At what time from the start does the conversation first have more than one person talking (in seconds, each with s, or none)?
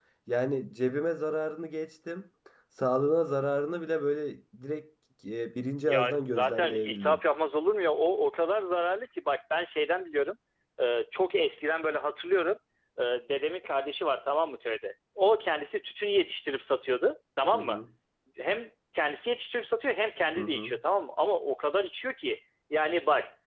5.9 s